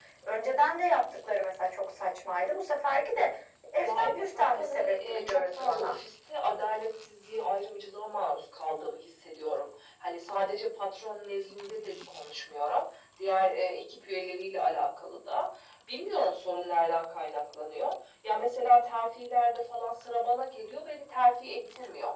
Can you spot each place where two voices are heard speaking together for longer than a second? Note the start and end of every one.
3.8-6.0

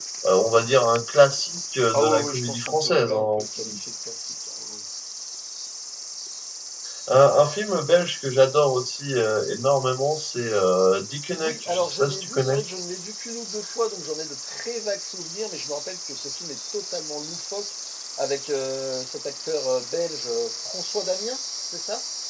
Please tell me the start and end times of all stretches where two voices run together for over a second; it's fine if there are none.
1.9-3.8, 11.4-12.6

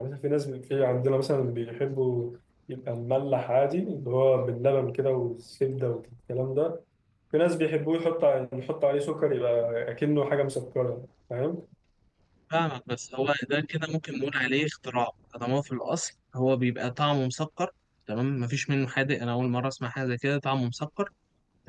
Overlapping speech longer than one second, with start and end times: none

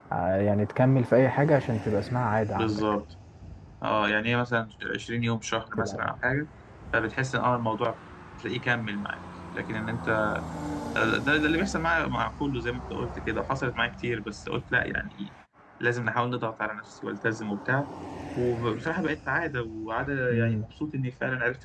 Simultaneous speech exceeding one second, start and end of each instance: none

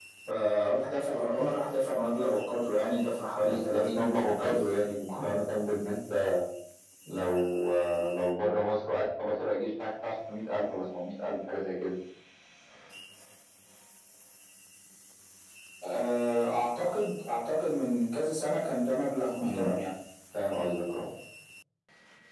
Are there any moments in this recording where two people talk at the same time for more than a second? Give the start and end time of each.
3.4-4.7

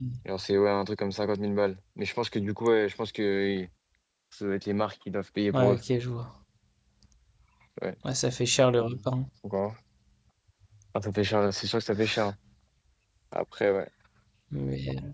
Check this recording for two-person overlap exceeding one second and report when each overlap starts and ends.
none

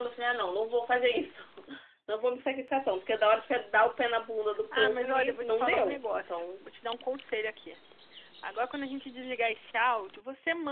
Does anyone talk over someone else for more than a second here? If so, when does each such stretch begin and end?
4.8-6.4

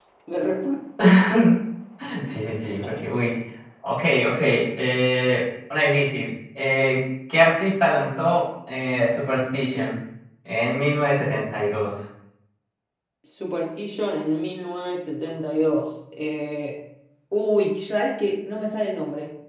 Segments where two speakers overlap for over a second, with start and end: none

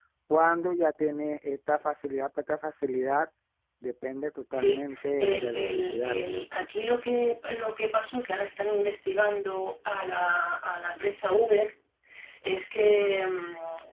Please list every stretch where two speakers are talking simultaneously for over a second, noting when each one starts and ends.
4.5-6.2

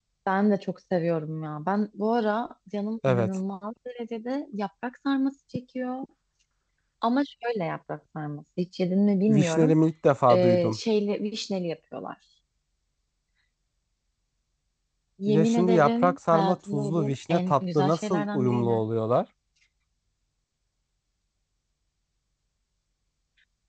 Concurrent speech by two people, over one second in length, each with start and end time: 15.3-18.8

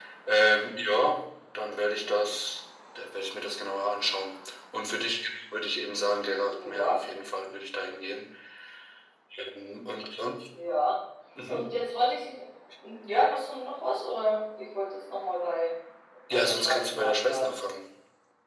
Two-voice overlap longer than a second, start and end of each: 16.3-17.5

